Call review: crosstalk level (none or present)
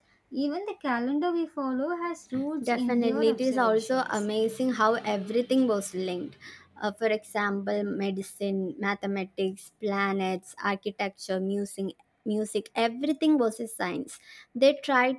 present